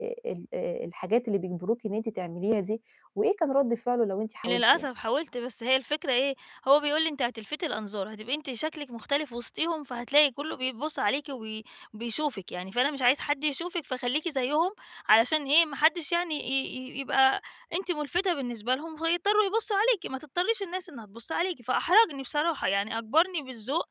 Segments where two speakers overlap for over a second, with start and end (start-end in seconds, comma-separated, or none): none